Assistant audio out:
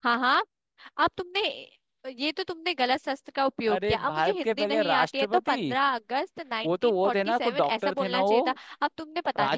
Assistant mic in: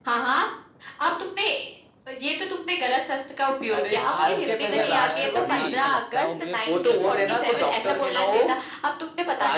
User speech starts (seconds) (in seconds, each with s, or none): 4.0 s